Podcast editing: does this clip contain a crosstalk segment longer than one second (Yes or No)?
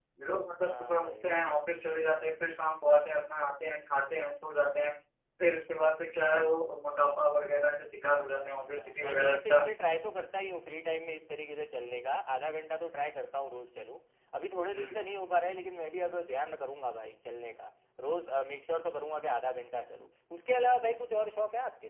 Yes